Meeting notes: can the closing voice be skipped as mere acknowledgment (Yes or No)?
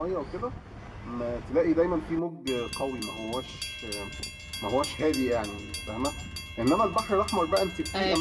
Yes